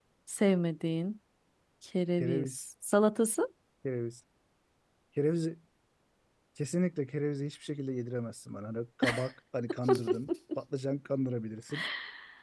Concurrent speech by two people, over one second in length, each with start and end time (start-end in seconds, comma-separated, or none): none